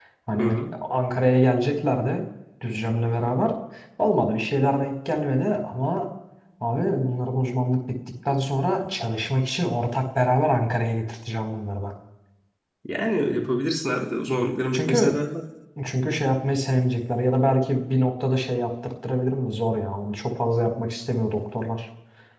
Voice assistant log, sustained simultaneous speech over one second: none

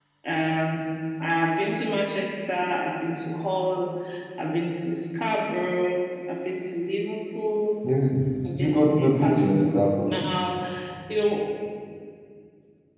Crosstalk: present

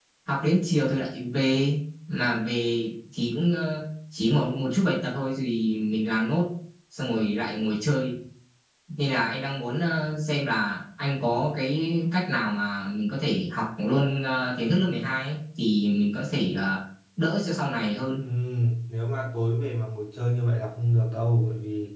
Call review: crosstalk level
none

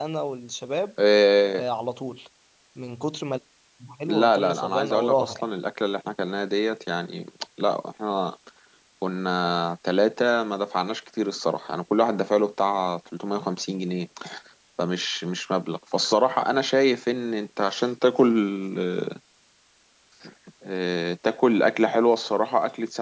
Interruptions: present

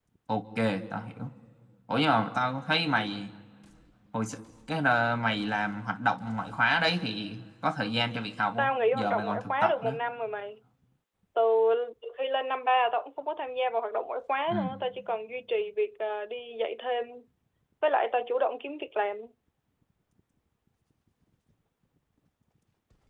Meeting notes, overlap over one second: present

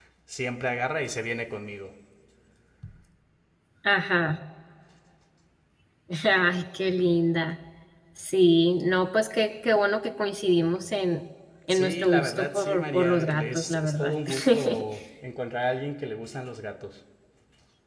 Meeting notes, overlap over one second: present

